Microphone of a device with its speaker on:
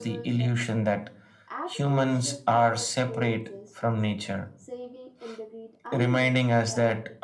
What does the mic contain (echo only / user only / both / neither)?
both